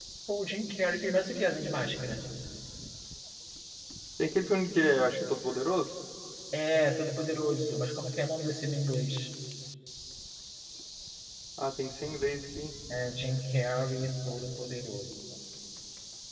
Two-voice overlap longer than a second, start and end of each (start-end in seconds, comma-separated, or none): none